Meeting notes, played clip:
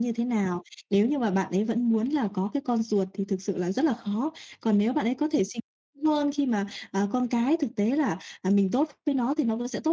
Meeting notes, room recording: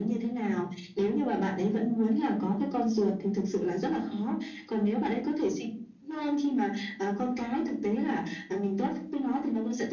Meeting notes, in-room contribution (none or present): none